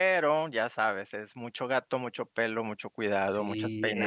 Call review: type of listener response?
taking over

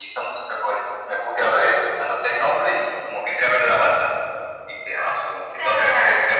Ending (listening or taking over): listening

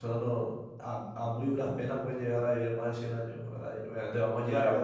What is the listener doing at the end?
taking over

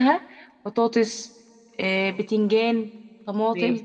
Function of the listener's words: listening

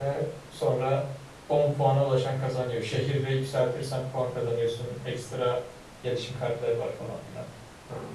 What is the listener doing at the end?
taking over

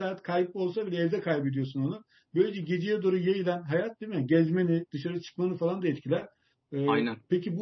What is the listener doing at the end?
listening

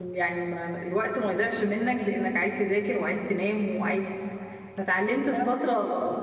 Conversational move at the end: listening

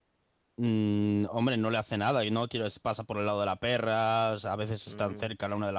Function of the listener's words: taking over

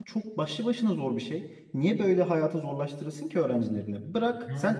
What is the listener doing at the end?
listening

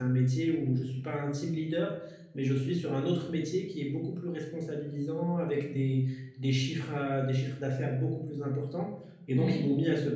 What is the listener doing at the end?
listening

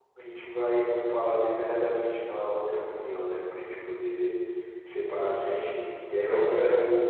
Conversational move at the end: listening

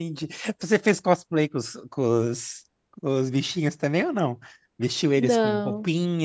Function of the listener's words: listening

